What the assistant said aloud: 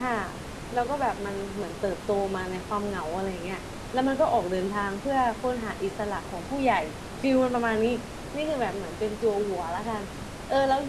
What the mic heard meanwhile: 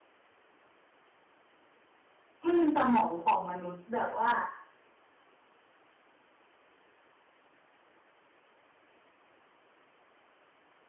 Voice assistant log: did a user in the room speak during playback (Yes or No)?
Yes